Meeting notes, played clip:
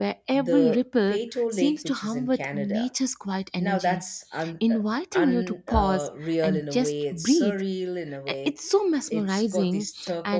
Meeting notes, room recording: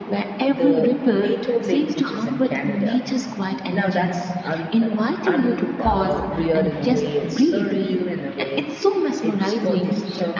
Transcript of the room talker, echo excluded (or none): none